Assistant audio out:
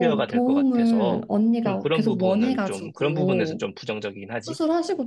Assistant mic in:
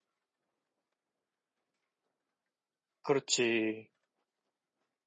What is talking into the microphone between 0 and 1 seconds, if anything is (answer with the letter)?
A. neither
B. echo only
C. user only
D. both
A